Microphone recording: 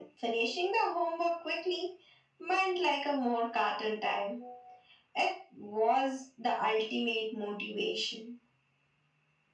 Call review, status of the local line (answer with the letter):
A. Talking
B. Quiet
B